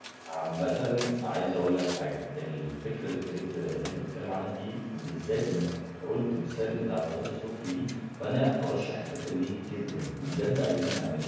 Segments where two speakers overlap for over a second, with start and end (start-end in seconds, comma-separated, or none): none